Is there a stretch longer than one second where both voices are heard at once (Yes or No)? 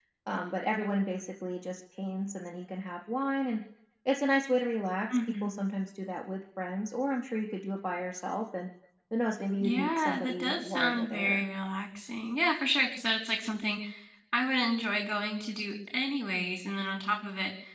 Yes